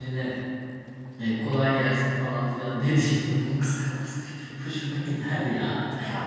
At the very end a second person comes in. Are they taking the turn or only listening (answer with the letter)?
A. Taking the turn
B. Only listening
A